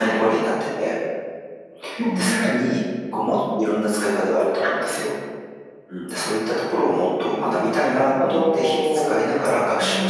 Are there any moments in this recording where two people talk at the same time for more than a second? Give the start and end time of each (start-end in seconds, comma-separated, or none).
7.8-9.2